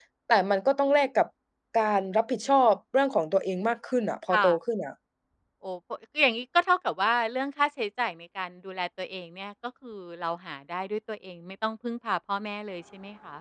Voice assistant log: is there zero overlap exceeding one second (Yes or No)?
Yes